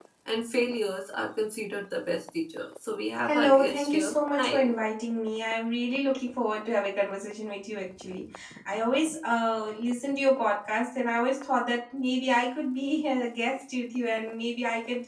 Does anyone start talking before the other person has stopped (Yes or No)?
Yes